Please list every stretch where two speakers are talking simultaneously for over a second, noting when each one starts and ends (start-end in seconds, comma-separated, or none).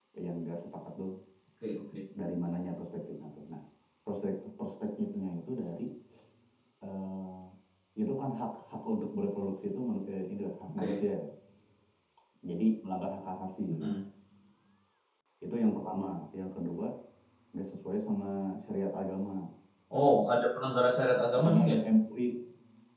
none